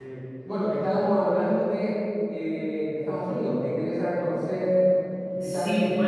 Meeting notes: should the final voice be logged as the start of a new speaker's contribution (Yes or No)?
Yes